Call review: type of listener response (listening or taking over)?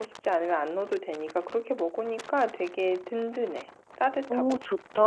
taking over